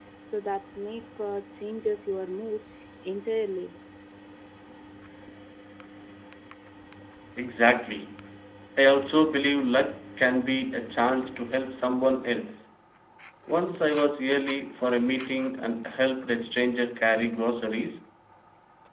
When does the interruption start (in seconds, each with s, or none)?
none